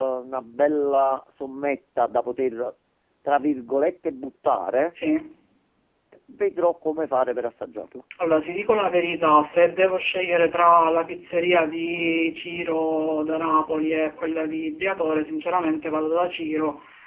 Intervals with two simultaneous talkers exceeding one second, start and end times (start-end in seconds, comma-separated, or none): none